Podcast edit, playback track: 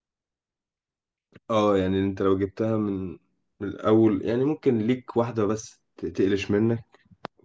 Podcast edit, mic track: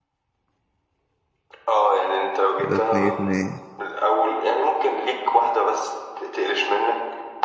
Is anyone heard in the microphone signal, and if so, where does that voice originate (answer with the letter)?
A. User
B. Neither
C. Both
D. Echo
C